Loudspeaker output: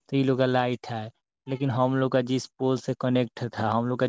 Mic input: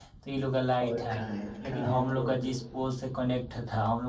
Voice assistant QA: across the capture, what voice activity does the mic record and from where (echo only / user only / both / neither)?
both